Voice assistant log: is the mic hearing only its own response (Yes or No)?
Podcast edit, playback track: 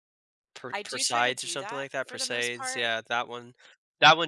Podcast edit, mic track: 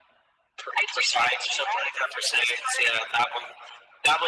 Yes